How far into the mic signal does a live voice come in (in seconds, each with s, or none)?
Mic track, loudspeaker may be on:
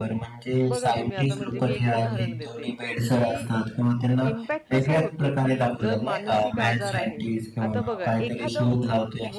0.7 s